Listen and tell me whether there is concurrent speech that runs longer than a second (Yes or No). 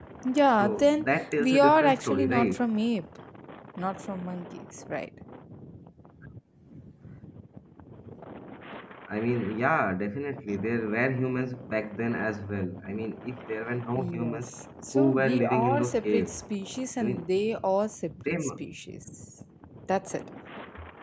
Yes